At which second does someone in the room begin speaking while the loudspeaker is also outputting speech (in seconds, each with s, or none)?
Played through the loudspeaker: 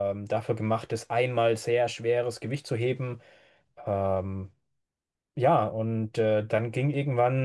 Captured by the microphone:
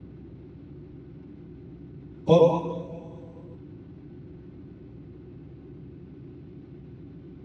2.2 s